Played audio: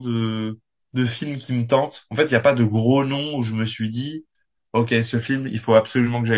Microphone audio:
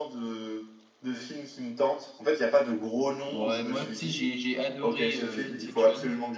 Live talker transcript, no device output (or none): Ouais, moi, tu sais, j'ai, j'ai adoré euh, Inception.